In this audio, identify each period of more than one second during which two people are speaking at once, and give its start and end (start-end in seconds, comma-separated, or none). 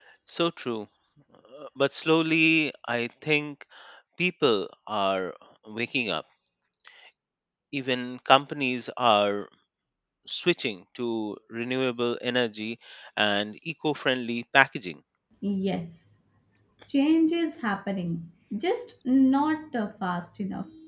none